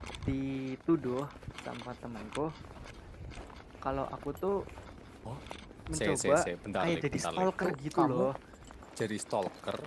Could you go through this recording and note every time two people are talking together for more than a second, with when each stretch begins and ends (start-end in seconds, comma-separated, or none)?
6.8-8.2